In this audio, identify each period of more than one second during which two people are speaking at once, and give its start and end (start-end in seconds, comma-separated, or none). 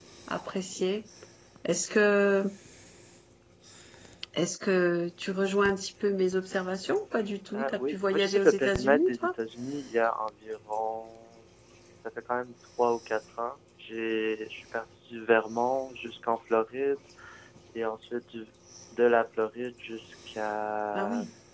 7.5-9.3